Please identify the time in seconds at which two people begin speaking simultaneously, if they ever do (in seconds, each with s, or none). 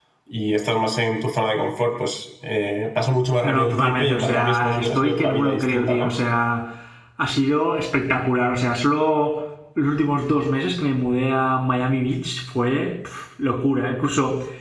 3.4 s